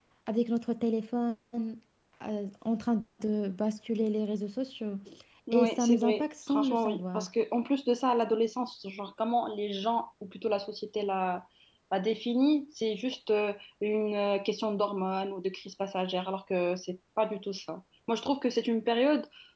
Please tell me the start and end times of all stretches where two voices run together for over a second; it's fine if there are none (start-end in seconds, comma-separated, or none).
5.5-7.2